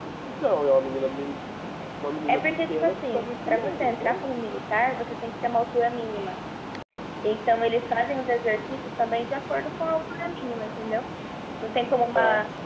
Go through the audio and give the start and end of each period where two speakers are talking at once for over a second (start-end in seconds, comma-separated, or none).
2.3-4.2